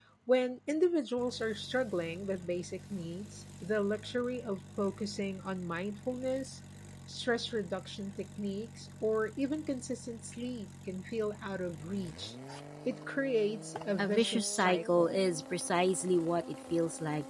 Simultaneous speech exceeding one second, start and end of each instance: 14.0-15.2

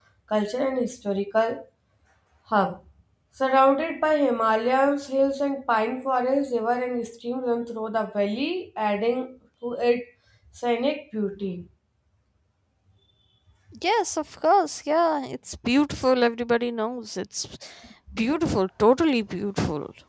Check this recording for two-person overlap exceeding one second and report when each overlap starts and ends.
none

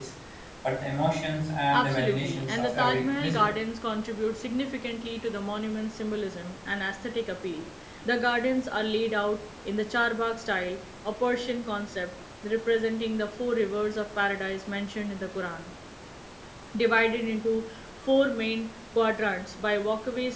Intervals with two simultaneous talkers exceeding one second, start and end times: 1.8-3.5

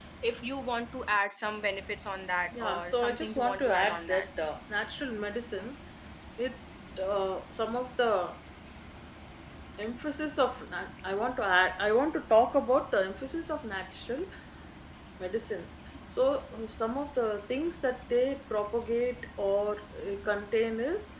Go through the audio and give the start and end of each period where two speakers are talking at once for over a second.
2.5-4.3

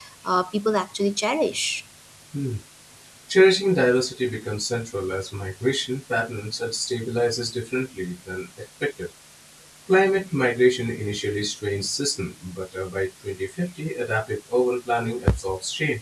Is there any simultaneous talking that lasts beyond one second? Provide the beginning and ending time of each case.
none

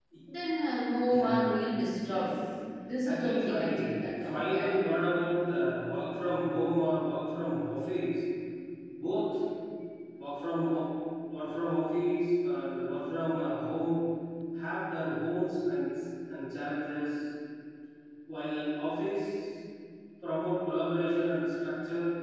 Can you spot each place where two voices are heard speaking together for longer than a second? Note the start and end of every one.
3.0-4.8

